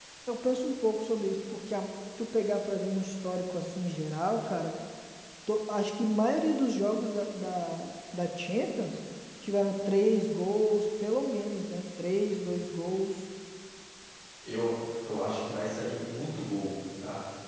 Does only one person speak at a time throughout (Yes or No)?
Yes